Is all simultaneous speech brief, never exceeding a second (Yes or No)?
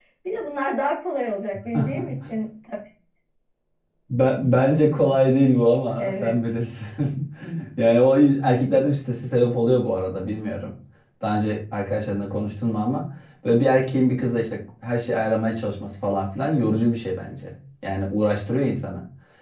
Yes